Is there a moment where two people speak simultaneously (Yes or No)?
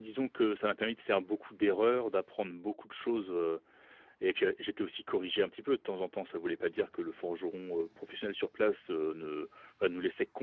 No